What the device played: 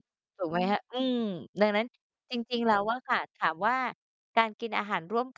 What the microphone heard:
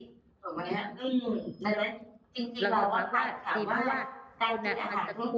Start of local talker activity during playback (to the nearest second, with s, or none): 3 s